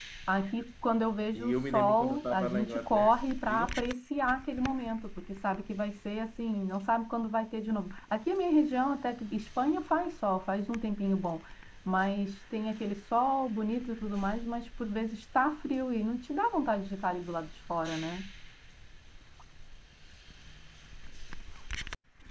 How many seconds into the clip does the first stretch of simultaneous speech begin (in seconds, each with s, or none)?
1.3 s